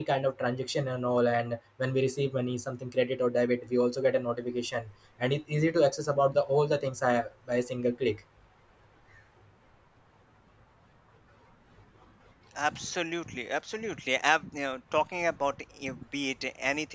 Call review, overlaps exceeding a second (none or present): none